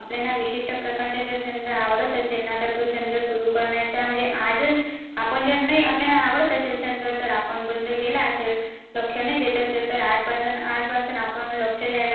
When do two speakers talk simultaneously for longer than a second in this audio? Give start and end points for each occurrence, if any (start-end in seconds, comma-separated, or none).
none